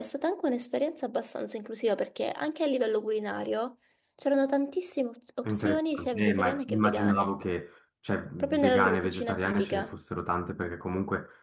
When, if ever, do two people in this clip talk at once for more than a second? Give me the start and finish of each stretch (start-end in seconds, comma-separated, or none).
5.5-7.3, 8.4-9.9